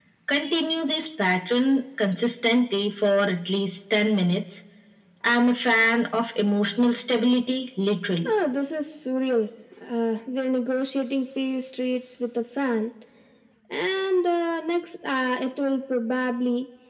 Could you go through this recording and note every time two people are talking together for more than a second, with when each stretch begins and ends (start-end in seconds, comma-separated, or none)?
none